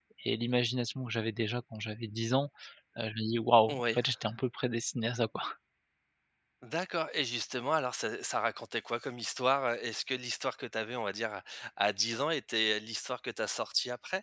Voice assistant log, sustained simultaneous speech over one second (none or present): none